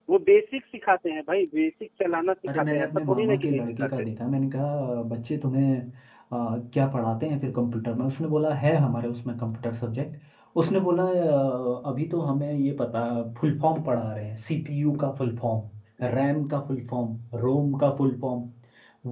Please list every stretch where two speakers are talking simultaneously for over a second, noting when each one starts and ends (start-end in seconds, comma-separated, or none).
2.5-3.9